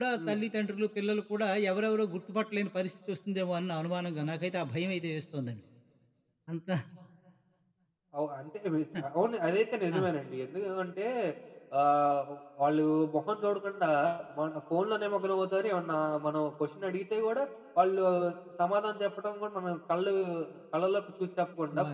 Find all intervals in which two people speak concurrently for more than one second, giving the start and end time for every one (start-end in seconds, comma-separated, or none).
none